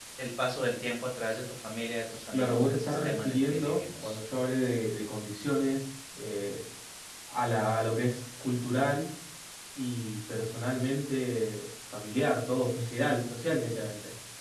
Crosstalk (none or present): present